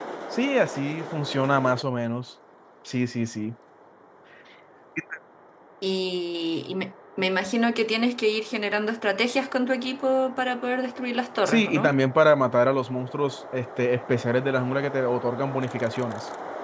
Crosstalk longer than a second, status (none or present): none